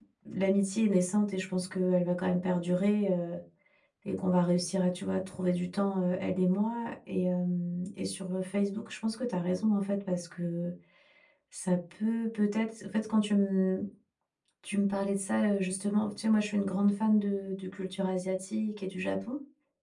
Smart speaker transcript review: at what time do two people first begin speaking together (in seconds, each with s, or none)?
none